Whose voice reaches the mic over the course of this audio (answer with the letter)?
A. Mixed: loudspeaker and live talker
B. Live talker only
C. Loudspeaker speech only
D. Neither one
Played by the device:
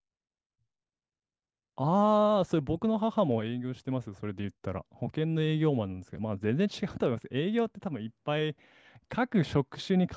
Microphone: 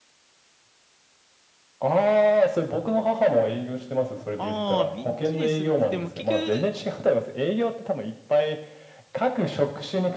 A